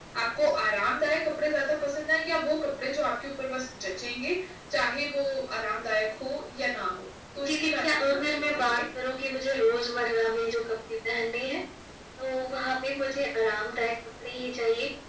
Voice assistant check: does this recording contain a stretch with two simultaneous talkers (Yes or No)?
Yes